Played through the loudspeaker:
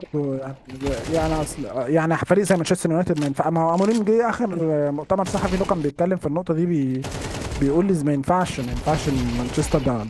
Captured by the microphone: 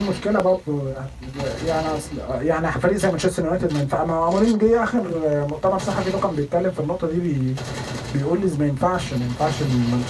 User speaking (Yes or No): No